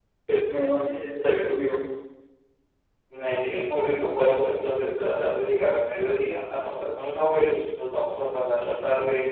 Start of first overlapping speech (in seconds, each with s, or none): none